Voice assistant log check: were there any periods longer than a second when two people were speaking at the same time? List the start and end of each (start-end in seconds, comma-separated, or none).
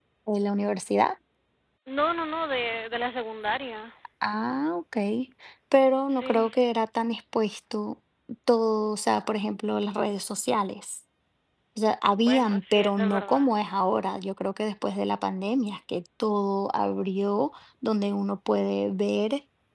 12.2-13.4